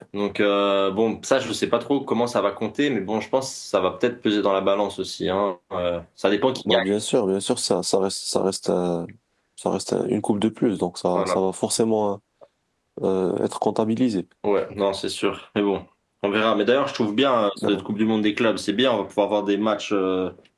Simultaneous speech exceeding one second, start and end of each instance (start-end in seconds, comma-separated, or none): none